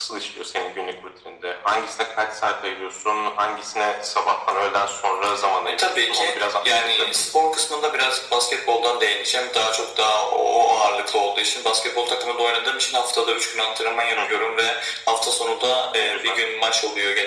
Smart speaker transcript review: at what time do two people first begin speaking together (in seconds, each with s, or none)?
5.7 s